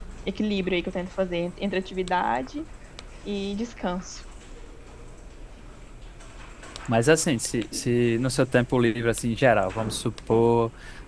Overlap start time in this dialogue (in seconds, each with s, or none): none